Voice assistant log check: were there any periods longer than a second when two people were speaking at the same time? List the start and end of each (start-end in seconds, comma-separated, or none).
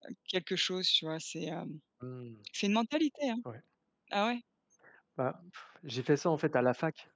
none